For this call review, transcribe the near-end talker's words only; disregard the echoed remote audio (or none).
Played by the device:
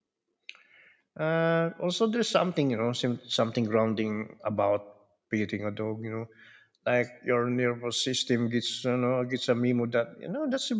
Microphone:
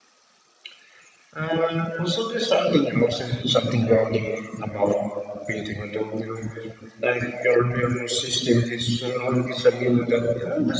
none